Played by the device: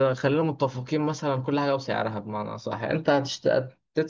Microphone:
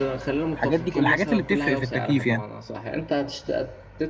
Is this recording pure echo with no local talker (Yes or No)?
No